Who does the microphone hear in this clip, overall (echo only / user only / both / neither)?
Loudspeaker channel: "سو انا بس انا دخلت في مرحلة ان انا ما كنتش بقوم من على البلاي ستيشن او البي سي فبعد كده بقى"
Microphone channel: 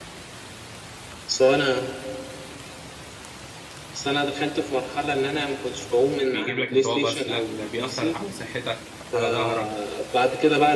both